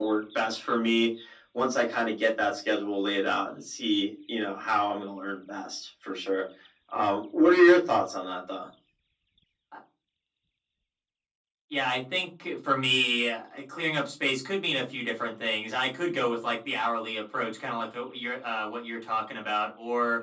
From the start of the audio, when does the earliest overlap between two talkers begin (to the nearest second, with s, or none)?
none